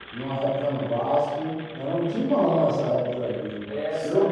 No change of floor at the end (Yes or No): No